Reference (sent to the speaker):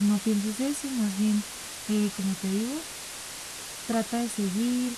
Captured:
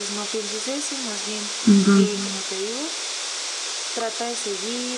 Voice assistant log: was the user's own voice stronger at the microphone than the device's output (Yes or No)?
Yes